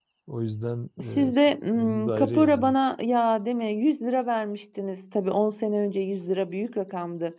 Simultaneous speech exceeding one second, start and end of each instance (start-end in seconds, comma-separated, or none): 1.3-2.8